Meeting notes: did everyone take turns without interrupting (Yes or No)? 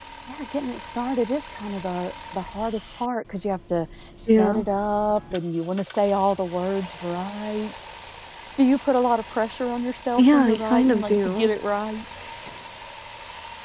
No